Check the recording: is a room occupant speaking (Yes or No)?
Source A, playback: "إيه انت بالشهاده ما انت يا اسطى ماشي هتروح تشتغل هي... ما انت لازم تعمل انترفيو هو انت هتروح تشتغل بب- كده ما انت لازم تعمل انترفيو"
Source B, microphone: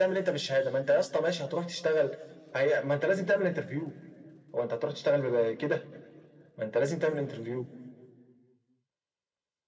No